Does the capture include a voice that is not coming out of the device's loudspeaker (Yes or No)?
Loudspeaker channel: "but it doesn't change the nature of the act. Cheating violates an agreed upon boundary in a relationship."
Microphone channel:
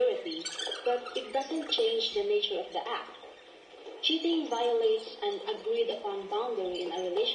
No